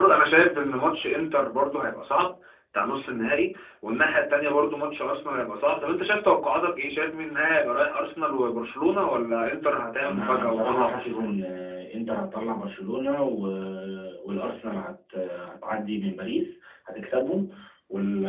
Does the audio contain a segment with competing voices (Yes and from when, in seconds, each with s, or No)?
Yes, from 10.0 s